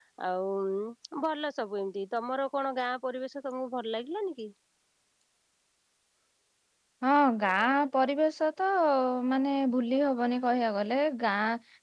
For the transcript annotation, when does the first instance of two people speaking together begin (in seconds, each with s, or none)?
none